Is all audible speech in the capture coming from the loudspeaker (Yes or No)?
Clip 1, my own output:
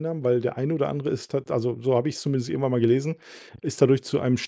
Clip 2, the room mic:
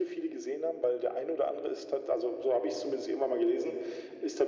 Yes